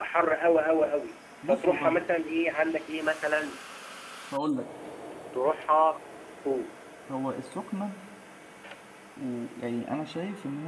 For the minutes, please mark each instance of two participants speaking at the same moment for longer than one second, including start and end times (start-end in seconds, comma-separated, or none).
none